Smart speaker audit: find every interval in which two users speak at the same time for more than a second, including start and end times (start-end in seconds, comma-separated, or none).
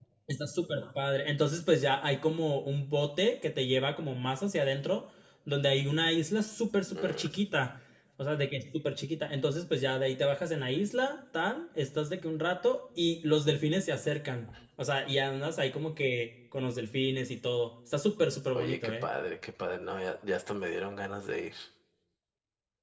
none